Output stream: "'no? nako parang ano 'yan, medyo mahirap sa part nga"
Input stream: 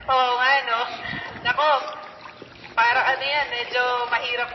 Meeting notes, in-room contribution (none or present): none